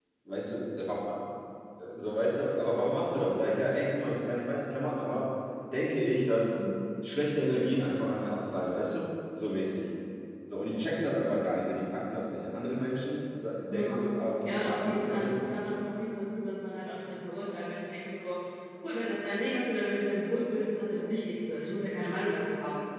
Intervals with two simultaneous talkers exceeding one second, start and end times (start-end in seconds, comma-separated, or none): 14.4-15.8